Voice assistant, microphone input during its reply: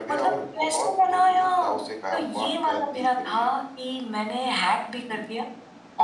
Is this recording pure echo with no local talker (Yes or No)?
Yes